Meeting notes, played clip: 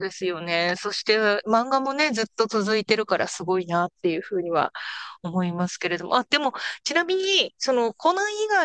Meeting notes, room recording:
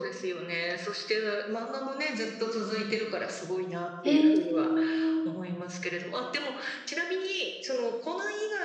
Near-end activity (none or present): present